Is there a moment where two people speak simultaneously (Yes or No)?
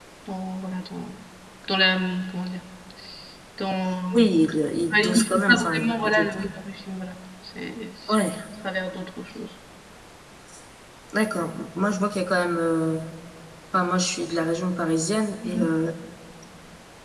Yes